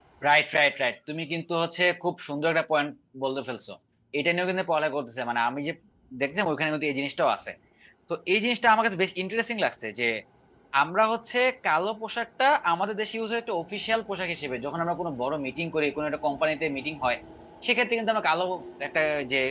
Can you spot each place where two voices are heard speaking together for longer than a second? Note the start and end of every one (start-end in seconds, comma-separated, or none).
none